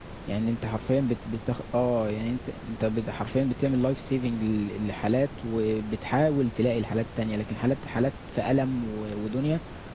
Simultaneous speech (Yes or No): No